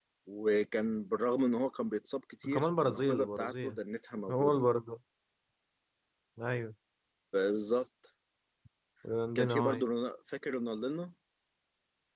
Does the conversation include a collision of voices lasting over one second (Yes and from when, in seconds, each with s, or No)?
Yes, from 2.4 s